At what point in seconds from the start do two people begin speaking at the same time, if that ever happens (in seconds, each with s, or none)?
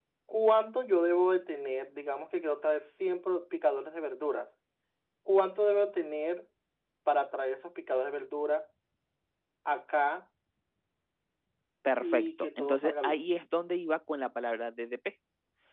12.0 s